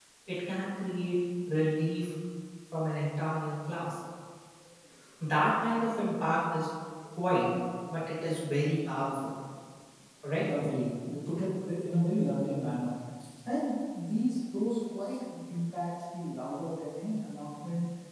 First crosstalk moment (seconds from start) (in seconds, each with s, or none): none